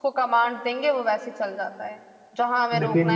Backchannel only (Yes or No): Yes